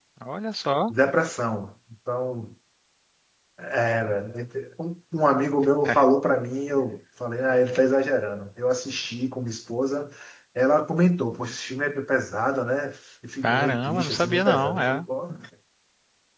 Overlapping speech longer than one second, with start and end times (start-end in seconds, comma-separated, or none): 13.4-15.1